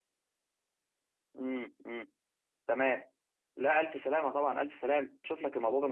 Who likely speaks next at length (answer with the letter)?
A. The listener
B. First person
B